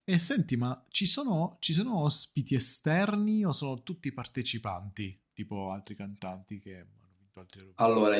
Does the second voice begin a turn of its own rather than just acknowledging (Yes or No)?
Yes